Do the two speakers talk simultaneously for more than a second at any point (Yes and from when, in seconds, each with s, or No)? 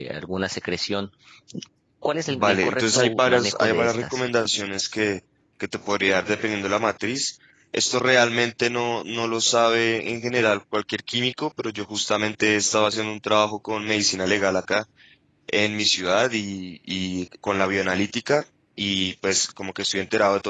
Yes, from 2.3 s